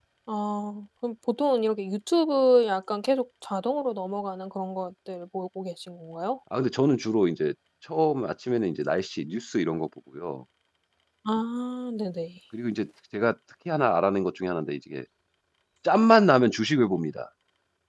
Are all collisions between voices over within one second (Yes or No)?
Yes